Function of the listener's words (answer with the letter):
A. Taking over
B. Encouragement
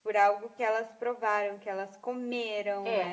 A